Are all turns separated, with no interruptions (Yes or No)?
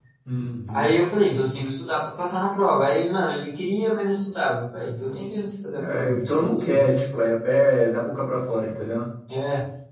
No